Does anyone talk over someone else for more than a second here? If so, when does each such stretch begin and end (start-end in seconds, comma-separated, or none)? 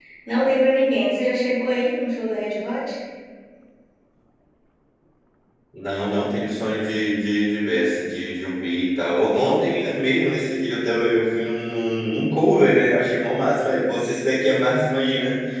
none